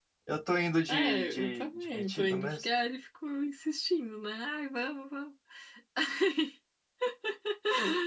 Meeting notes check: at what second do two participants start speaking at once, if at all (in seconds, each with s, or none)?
0.9 s